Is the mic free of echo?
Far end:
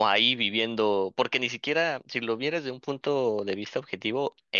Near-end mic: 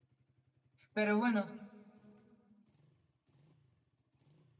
Yes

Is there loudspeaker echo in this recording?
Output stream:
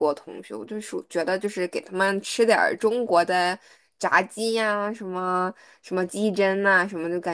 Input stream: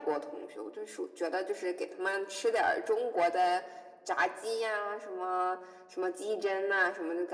Yes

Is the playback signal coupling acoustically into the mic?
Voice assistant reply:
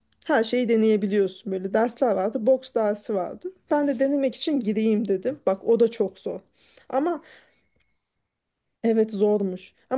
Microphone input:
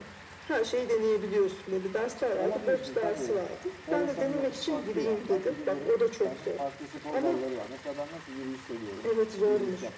Yes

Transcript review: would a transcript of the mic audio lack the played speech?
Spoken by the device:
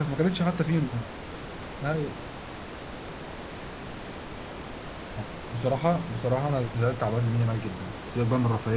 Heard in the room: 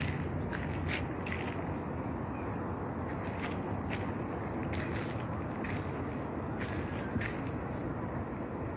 Yes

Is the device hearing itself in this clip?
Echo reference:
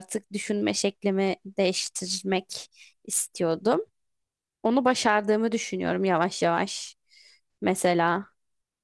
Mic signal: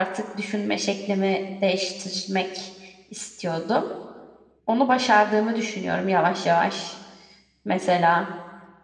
Yes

